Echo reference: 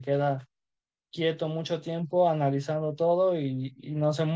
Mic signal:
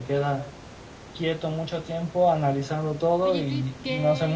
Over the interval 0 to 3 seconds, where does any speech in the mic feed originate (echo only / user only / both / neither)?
echo only